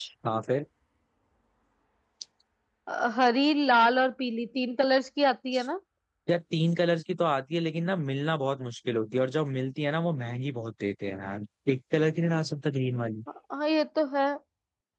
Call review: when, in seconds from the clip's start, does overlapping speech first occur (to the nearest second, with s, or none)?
none